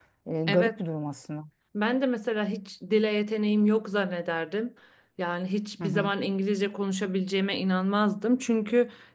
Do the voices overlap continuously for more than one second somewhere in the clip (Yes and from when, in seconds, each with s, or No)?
No